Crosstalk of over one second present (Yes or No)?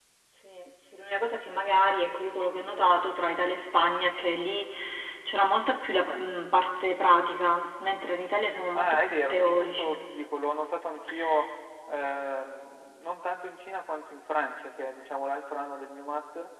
Yes